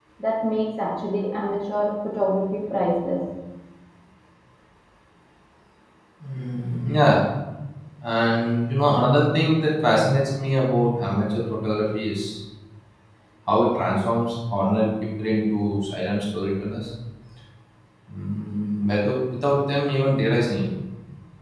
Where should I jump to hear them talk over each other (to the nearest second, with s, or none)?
none